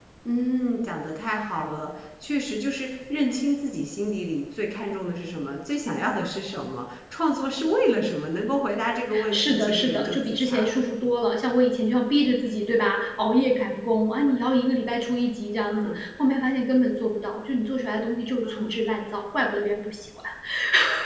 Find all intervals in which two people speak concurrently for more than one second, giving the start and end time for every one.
9.3-10.8

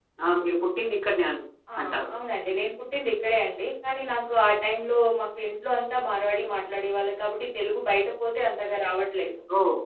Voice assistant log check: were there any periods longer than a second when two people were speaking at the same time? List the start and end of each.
none

